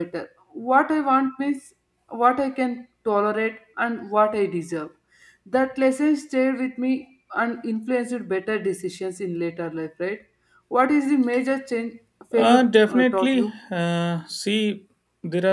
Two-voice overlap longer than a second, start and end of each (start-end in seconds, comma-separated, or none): 12.3-13.6